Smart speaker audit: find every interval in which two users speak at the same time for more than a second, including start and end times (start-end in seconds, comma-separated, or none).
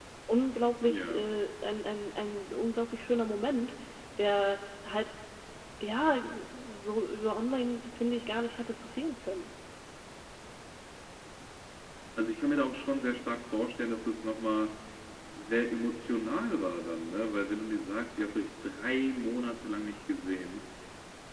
none